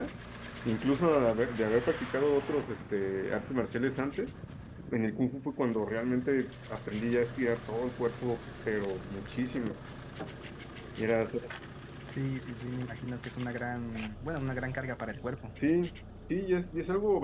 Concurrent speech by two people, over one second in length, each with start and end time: none

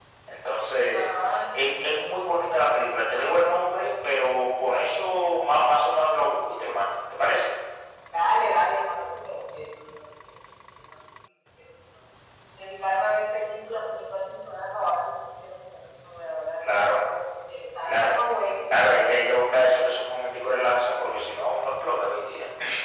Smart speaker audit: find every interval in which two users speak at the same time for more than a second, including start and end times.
none

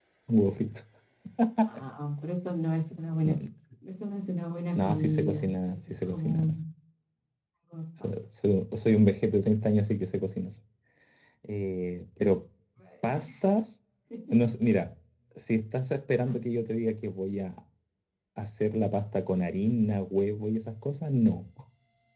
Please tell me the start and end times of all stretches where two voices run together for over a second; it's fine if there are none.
4.8-6.5

